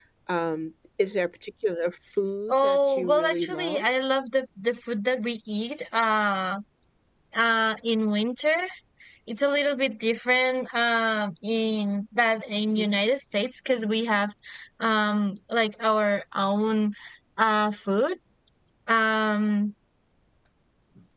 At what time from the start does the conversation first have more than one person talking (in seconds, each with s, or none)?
2.5 s